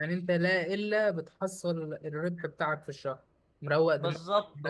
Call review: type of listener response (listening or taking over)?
taking over